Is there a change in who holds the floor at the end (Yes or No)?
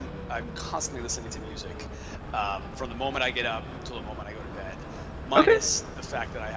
No